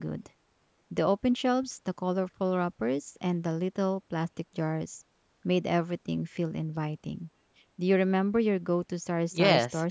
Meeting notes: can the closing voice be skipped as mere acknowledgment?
No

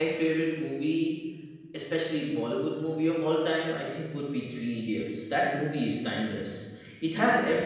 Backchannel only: Yes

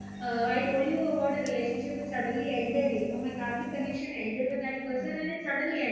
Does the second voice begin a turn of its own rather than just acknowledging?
No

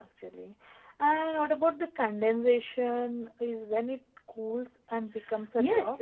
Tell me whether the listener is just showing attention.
No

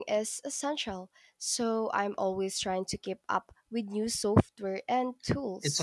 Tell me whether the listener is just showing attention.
No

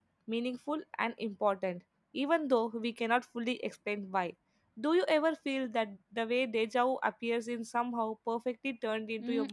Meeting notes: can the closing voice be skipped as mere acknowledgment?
No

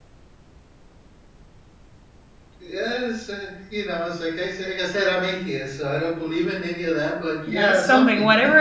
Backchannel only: No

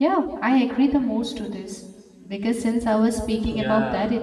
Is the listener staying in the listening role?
Yes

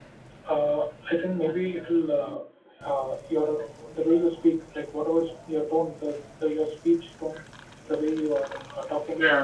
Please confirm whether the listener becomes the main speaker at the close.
No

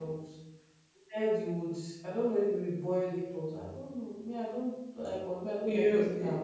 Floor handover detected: Yes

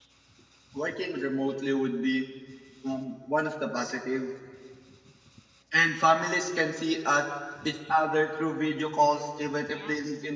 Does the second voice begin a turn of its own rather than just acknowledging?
No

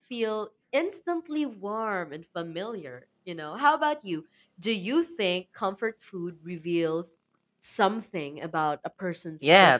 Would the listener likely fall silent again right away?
No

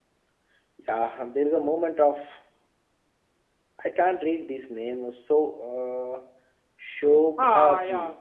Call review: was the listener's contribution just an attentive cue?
No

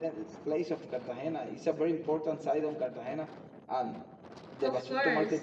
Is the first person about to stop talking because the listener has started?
No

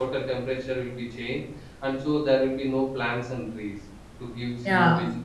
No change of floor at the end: No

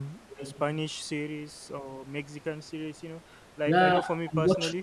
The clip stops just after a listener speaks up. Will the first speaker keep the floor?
No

